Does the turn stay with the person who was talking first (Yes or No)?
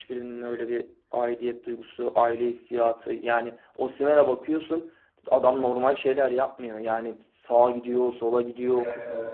No